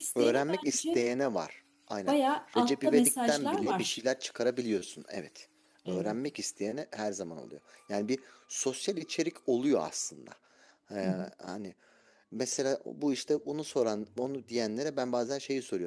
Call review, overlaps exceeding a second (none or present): present